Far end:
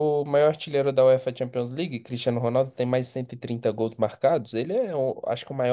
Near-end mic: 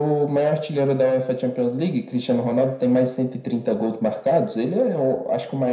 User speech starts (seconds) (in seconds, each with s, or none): none